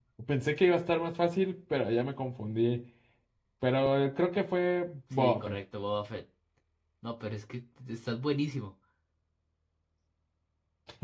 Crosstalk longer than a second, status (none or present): none